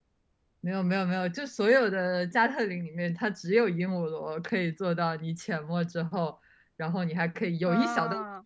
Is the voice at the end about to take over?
No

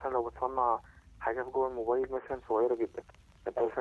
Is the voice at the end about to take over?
No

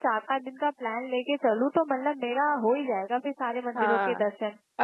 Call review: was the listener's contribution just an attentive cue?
No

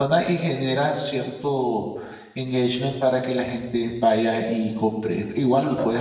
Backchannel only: Yes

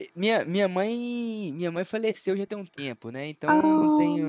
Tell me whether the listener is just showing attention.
Yes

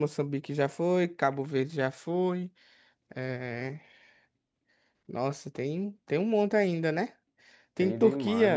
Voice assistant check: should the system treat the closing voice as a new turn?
Yes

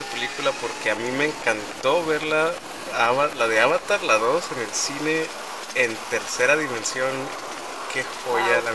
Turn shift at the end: No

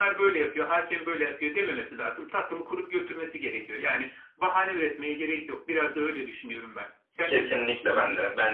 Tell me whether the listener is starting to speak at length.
Yes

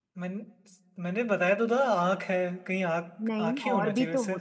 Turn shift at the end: Yes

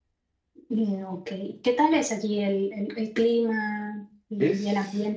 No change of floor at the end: No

